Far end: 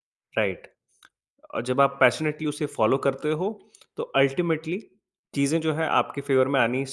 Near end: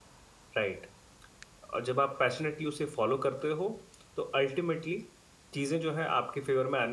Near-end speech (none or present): none